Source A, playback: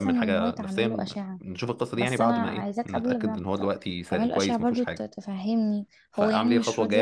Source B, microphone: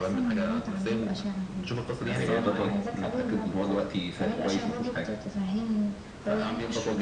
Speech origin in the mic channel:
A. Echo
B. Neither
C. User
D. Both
D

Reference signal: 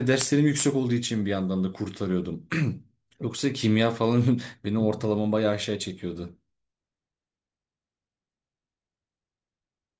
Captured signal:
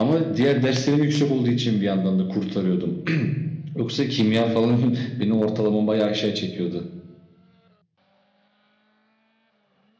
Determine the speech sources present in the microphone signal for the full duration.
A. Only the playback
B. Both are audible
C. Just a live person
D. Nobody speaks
A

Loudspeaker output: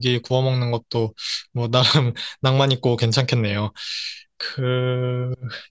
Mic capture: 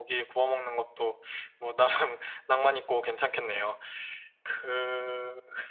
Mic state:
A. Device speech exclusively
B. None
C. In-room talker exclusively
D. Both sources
A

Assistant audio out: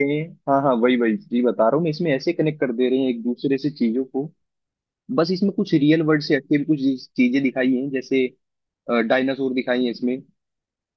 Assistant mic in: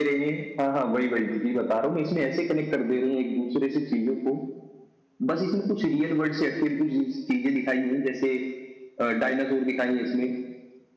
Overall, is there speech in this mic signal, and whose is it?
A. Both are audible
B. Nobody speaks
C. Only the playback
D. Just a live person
C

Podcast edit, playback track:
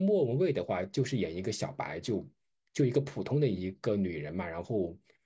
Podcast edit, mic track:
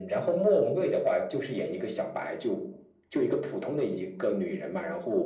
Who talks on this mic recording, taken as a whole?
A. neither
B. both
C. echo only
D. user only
C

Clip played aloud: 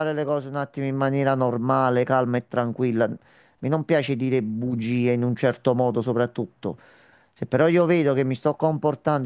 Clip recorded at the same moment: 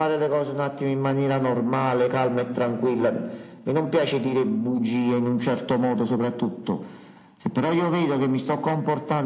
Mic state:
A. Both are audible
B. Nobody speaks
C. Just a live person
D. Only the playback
D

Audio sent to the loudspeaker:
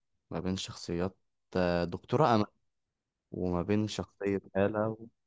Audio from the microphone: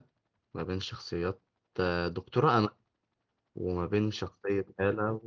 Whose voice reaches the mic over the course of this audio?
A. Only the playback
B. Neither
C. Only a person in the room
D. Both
A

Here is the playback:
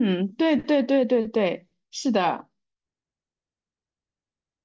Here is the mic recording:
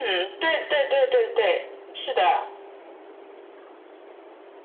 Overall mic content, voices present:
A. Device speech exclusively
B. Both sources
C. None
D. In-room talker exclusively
A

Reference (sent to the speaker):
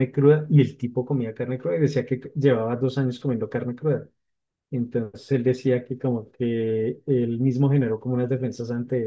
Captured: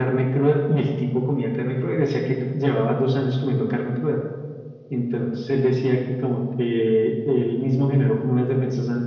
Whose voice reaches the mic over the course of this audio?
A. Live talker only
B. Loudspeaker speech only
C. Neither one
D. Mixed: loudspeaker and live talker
B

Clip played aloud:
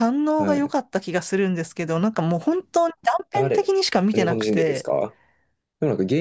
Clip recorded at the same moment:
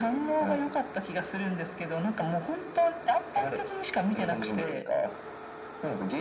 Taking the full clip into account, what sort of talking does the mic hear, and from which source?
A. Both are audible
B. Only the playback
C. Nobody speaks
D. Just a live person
B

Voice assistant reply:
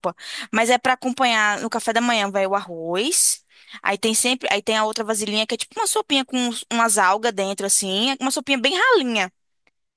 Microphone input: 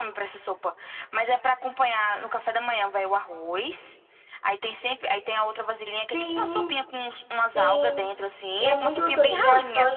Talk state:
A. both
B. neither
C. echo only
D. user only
A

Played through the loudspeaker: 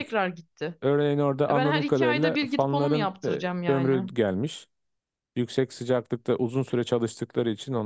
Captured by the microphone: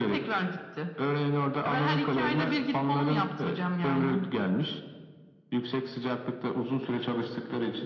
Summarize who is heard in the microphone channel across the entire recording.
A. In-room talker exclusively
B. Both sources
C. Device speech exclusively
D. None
C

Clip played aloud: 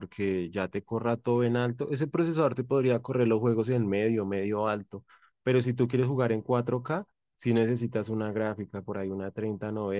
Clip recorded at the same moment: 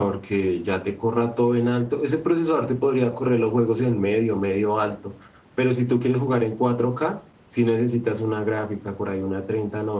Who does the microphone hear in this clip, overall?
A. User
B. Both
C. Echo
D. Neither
C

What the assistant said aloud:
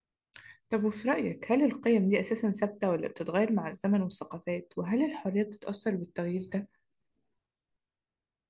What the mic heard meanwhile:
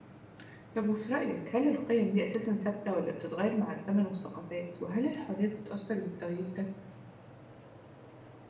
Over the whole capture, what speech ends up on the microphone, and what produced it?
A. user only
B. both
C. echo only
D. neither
C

